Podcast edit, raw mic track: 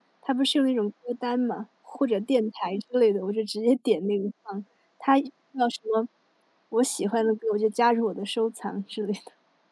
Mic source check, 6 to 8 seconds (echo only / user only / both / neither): user only